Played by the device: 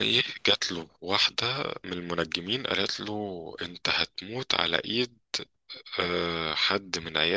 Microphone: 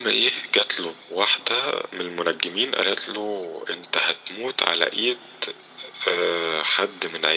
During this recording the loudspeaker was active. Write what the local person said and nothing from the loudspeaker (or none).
none